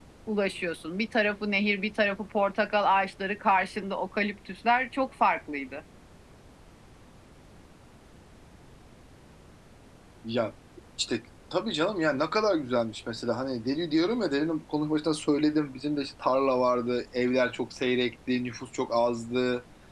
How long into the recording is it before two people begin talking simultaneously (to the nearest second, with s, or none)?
none